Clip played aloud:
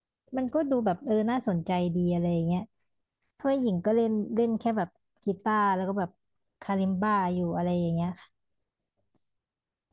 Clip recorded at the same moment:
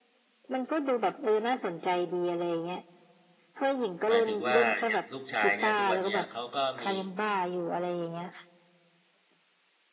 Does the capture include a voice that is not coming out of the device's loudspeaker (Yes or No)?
Yes